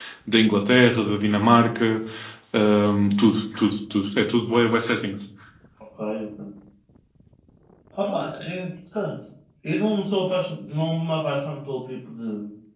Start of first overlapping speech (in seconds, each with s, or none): none